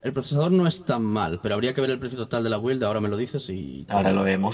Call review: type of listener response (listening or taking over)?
taking over